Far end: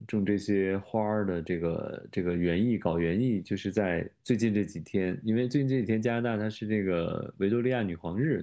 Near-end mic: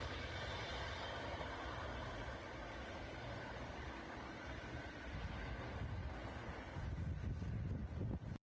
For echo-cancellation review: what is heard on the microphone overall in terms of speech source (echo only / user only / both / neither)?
neither